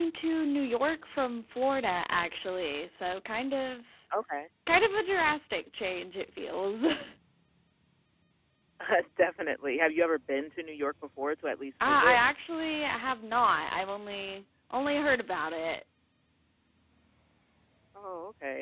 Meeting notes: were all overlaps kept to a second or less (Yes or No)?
Yes